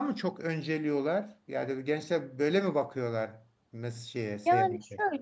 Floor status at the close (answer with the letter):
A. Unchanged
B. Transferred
B